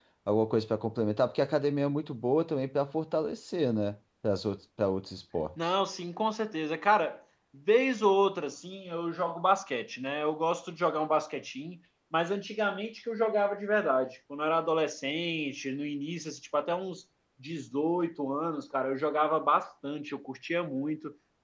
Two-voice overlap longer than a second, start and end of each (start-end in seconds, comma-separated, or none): none